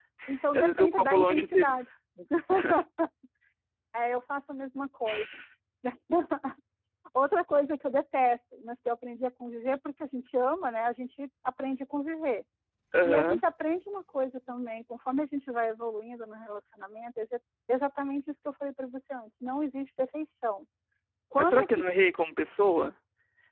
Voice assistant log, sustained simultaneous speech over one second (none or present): present